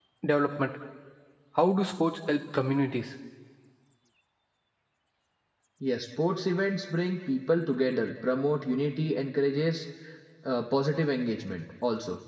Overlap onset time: none

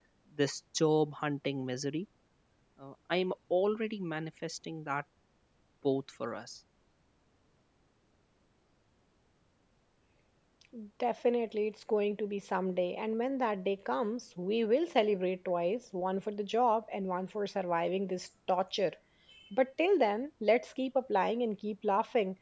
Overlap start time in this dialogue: none

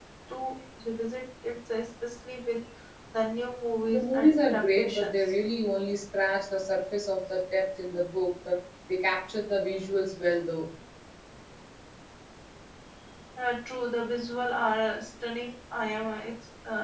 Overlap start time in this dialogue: 3.9 s

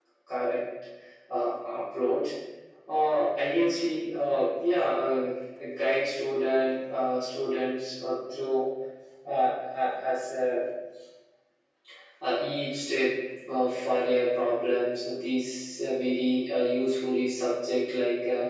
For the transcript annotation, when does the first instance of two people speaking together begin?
none

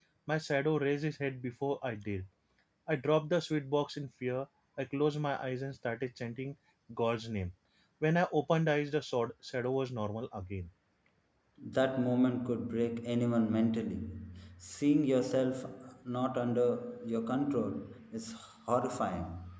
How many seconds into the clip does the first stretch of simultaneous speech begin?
none

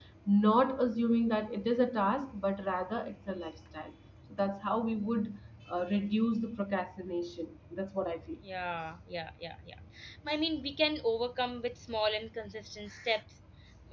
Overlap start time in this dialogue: none

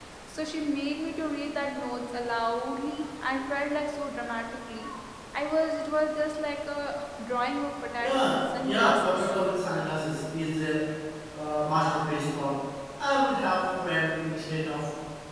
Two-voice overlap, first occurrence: 8.0 s

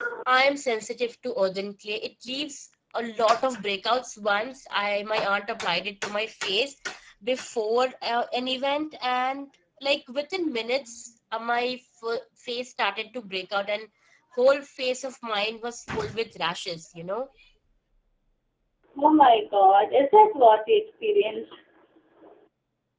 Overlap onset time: none

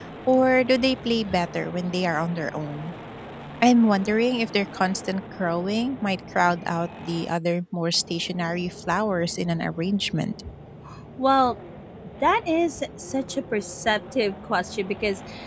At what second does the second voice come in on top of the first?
none

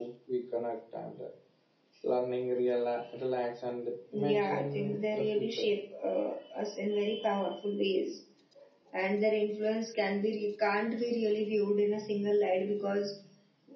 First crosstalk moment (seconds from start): 4.1 s

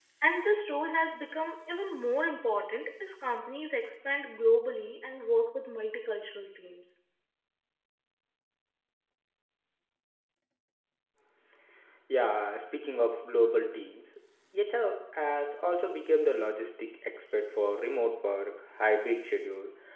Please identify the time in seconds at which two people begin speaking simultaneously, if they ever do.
none

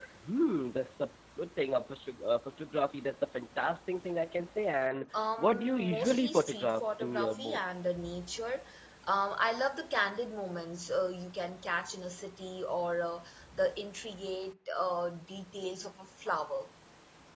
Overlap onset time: 5.1 s

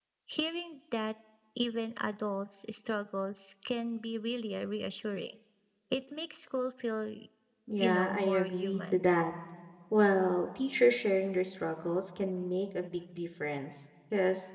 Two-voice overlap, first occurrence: 7.8 s

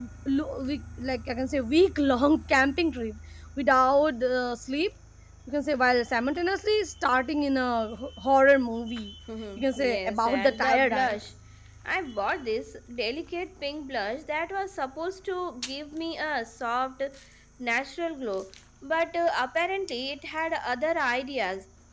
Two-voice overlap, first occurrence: 9.6 s

